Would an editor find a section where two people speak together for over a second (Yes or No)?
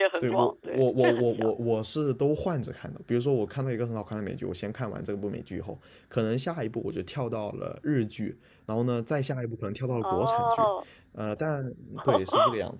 Yes